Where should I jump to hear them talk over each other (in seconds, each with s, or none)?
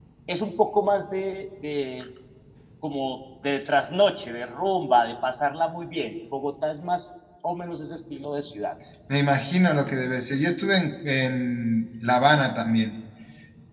none